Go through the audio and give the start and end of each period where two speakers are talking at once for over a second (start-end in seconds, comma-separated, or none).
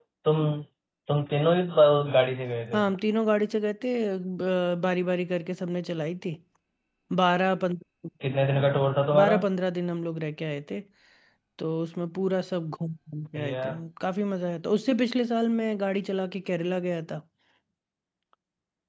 none